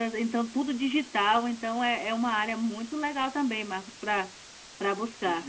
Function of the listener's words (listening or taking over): taking over